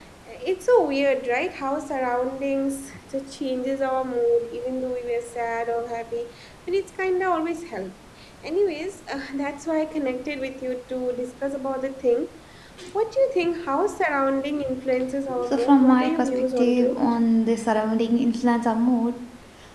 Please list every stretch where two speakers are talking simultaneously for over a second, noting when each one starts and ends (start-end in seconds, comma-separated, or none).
15.4-17.1